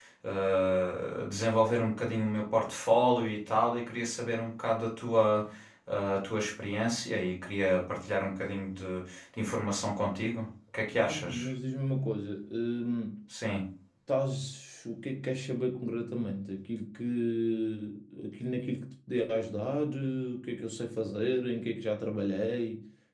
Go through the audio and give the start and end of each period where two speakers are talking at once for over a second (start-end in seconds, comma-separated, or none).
none